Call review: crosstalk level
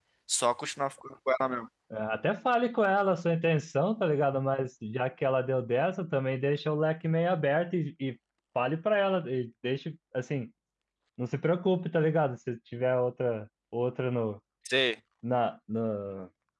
none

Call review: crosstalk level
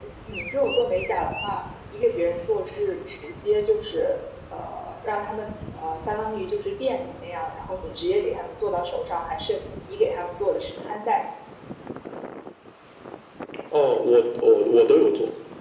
none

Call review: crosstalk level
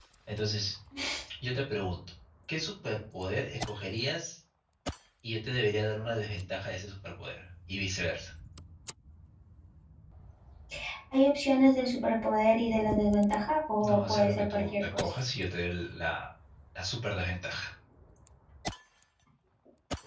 present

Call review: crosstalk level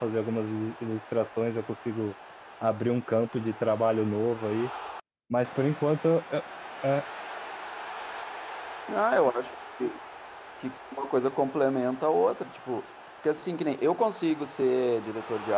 none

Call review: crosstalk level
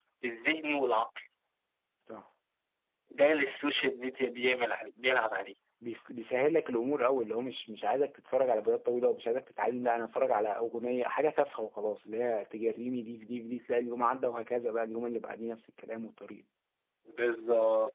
none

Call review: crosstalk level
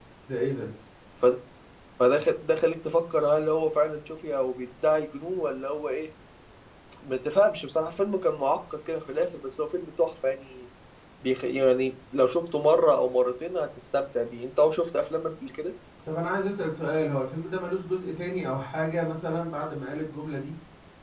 none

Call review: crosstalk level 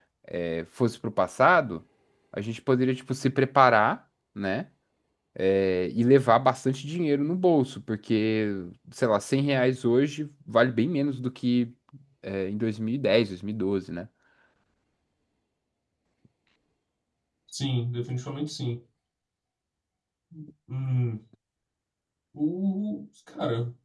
none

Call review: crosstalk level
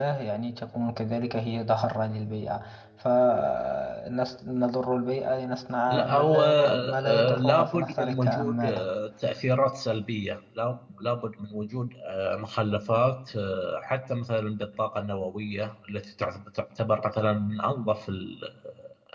present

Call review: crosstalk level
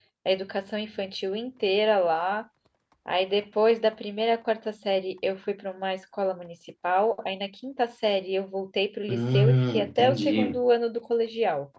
present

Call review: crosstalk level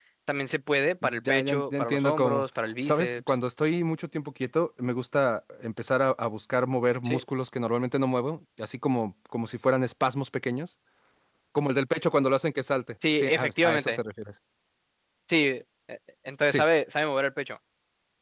present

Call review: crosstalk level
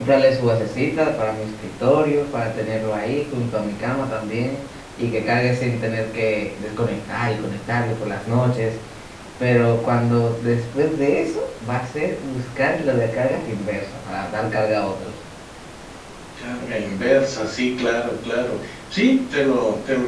none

